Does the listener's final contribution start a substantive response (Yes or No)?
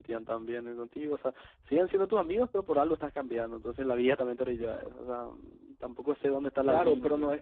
Yes